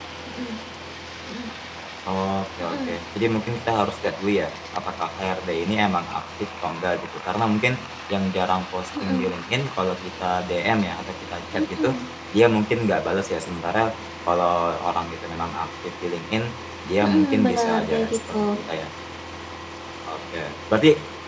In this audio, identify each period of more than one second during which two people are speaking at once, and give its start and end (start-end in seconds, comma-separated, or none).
17.0-18.3